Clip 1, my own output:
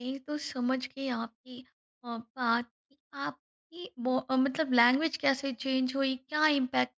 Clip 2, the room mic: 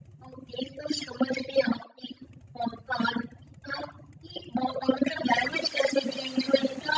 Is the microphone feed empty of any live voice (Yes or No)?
Yes